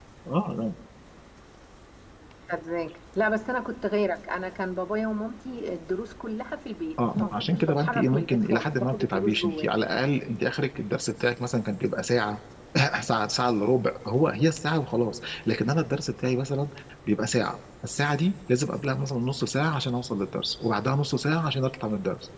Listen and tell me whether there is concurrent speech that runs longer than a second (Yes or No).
Yes